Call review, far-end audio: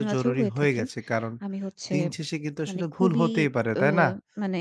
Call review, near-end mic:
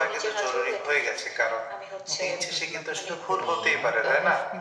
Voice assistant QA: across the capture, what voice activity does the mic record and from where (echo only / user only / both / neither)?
both